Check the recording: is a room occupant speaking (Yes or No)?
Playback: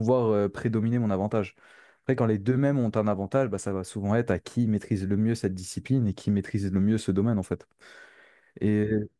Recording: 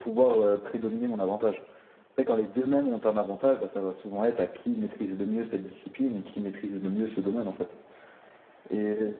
No